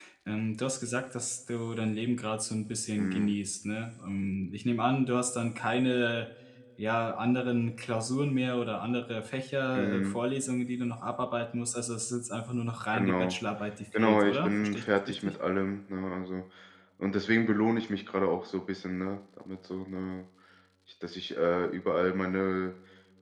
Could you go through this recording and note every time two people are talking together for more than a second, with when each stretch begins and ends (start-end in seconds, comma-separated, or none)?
14.0-15.3